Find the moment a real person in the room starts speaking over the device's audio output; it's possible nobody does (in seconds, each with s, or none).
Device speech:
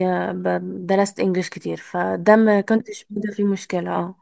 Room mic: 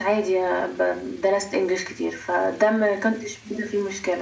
none